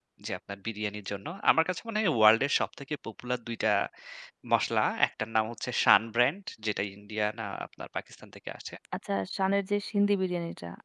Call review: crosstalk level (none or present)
none